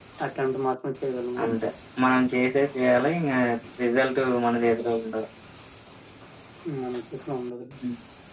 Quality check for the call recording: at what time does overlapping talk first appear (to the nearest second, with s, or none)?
none